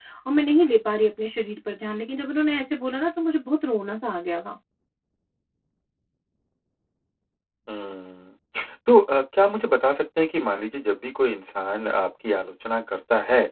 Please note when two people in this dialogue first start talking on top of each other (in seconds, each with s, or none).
none